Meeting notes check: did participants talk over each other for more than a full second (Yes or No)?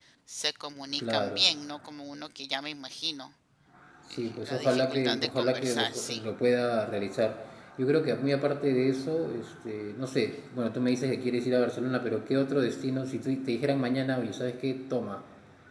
Yes